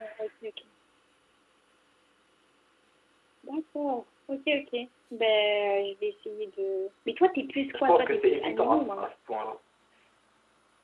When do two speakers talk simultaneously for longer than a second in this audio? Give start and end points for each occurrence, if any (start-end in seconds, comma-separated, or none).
7.7-9.1